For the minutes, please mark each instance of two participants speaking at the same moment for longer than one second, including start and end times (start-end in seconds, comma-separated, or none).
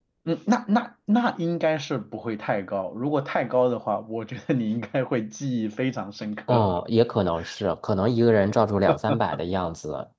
none